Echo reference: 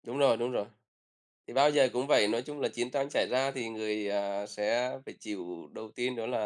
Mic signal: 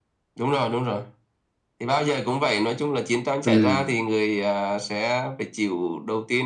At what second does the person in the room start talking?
3.5 s

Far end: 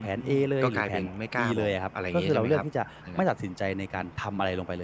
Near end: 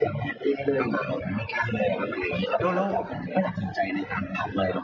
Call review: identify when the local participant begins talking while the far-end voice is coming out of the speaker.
2.6 s

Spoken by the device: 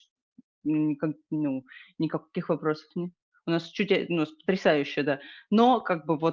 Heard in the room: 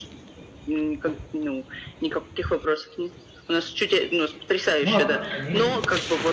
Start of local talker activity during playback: 4.8 s

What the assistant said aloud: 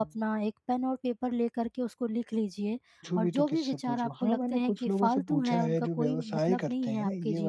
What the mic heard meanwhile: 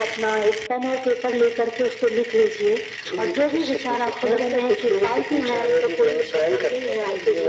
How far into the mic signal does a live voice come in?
none

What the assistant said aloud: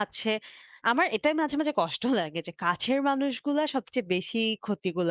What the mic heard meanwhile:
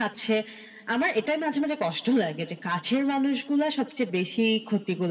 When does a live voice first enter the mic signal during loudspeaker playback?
none

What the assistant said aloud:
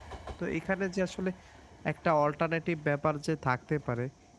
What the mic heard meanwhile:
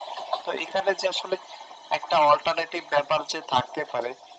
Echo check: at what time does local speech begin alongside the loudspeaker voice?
none

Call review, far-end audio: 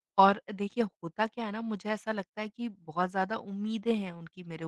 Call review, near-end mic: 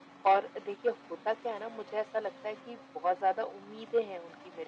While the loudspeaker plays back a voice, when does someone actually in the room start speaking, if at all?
none

